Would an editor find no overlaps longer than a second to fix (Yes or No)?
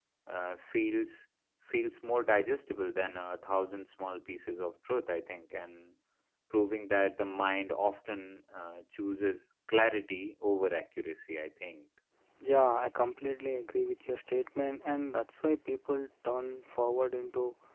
Yes